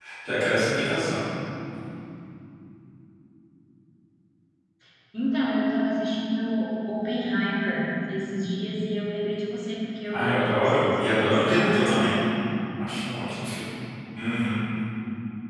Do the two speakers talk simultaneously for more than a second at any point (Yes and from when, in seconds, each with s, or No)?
Yes, from 10.1 s